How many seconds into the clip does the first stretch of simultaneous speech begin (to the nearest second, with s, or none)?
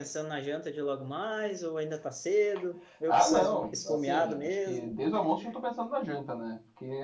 3 s